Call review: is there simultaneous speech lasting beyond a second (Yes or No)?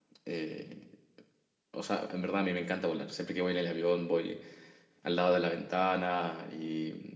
No